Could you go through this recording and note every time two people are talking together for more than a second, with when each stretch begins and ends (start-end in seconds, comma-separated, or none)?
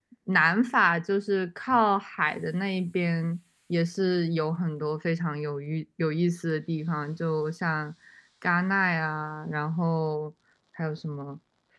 none